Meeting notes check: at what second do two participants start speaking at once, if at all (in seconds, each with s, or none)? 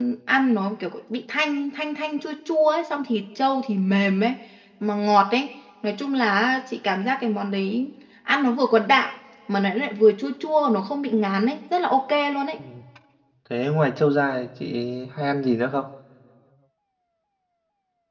none